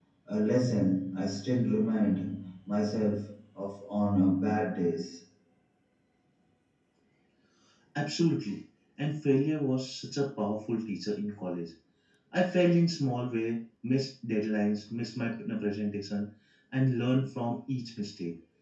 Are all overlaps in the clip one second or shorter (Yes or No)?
Yes